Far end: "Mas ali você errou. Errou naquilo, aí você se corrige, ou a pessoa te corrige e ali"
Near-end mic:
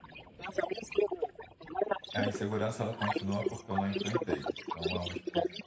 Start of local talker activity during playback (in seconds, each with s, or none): 2.1 s